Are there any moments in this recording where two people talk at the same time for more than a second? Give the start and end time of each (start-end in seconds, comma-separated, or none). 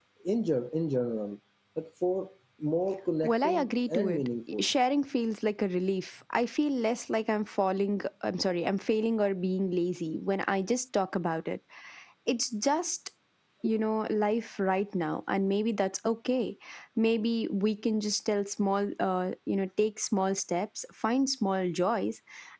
3.2-4.7